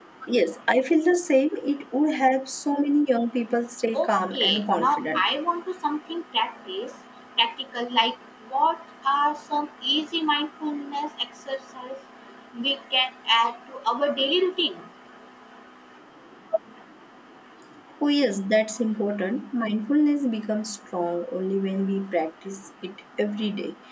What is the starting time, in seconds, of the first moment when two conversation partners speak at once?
4 s

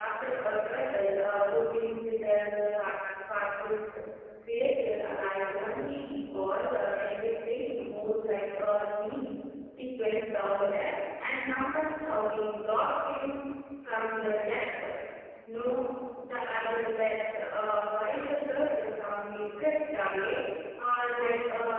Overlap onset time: none

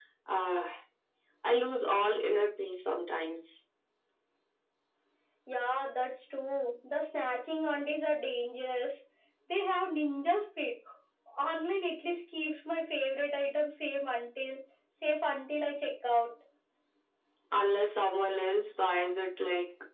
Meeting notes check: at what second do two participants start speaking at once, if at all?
none

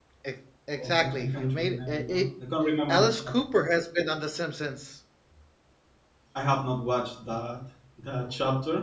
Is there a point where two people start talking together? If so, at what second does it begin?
1 s

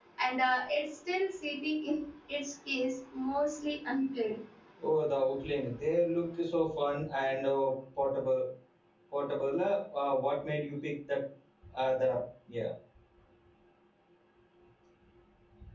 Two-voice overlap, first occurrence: none

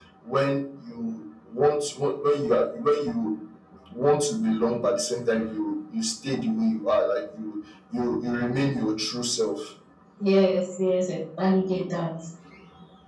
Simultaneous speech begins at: none

